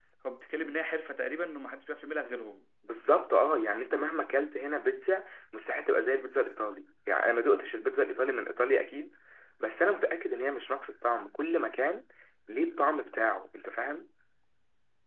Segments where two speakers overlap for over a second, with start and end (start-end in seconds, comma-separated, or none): none